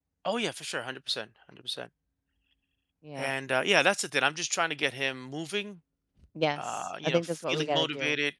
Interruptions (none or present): present